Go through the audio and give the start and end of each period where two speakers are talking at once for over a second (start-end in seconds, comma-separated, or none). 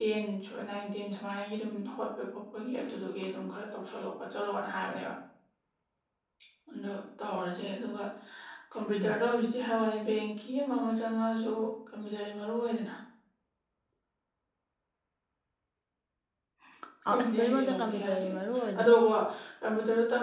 17.1-18.3